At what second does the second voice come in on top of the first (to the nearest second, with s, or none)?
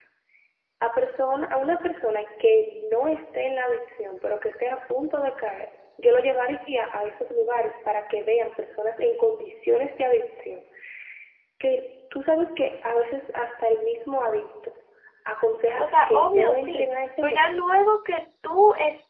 16 s